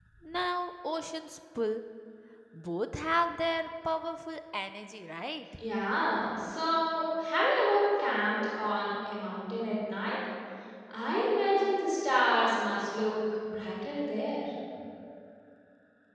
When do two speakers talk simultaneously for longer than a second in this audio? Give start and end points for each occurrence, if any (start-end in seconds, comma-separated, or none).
none